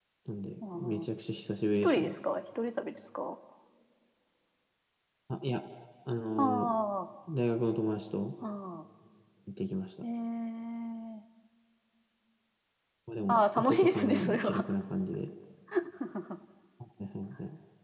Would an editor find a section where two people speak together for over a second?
Yes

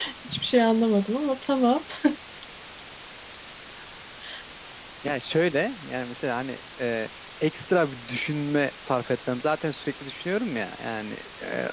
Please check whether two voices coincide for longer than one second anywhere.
No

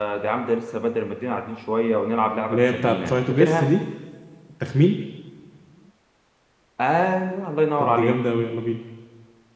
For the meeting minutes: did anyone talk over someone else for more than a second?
Yes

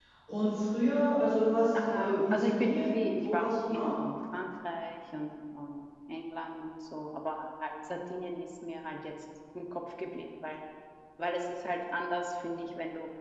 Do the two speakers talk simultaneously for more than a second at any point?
Yes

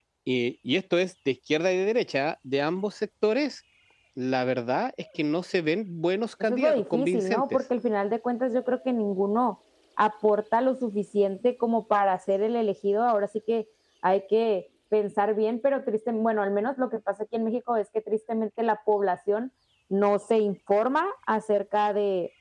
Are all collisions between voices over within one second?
No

